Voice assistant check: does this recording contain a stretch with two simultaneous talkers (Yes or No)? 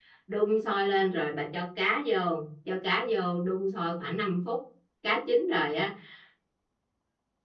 No